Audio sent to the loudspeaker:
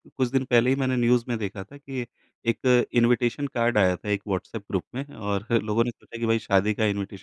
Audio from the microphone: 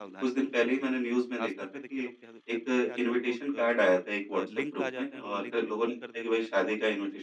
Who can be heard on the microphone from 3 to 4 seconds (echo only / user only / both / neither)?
both